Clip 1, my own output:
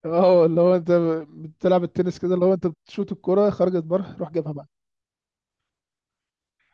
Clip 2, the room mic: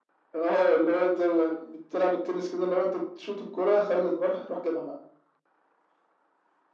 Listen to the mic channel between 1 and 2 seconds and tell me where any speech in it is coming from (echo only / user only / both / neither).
echo only